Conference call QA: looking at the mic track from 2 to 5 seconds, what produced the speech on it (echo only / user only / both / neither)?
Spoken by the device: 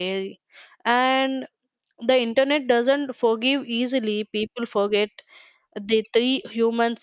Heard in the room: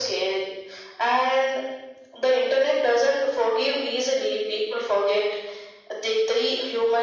echo only